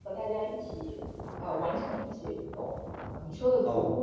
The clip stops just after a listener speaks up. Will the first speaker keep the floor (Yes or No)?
Yes